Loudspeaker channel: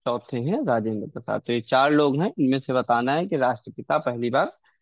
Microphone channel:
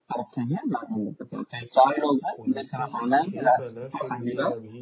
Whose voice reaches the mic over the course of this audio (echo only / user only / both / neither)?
both